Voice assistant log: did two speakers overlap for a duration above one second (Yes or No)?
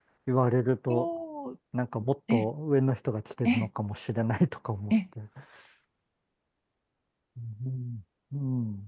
No